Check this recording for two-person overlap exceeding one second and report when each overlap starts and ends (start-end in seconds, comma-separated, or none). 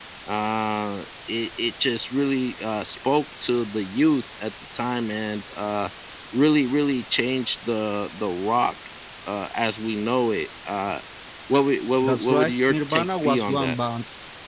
12.0-13.8